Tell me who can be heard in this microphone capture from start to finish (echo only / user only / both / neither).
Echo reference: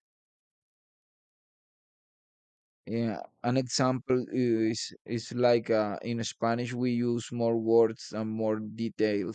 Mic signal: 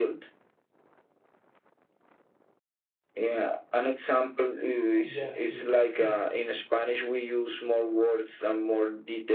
both